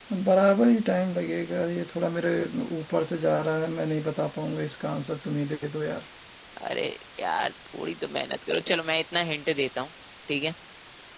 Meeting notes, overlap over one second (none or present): none